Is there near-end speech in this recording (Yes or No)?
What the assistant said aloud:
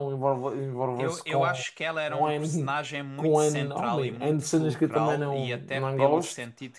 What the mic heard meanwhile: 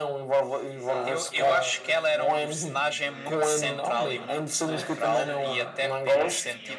Yes